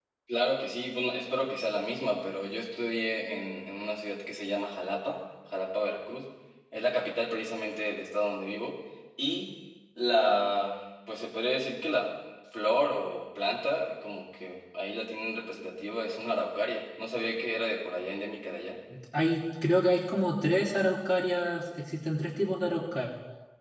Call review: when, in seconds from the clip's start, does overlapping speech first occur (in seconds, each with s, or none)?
none